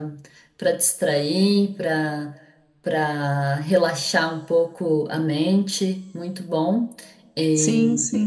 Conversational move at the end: listening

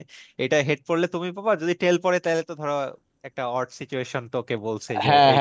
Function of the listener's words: taking over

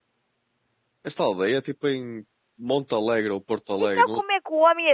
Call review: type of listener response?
taking over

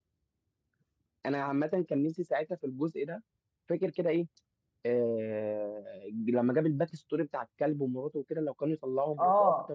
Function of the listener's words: taking over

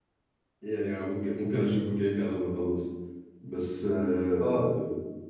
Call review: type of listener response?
listening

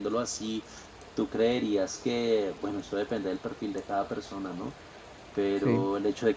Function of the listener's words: listening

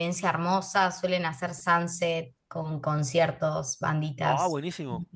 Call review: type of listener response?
taking over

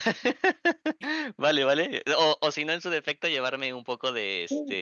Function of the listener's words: taking over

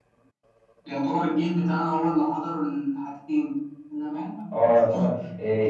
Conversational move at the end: taking over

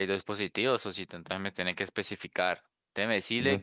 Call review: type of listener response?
listening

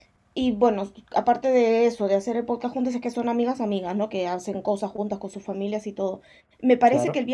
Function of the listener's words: listening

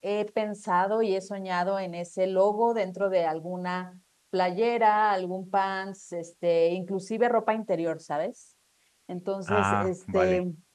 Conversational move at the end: listening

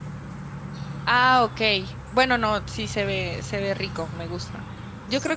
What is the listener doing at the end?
listening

